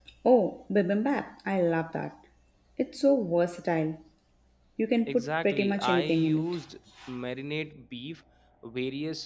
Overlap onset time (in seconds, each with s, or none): 5.1 s